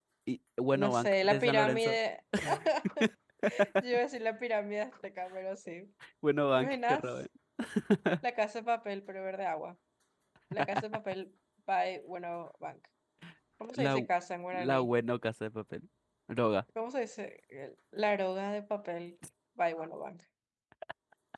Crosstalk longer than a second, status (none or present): present